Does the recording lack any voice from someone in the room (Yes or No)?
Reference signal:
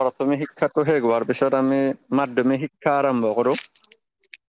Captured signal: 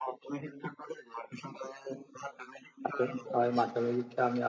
No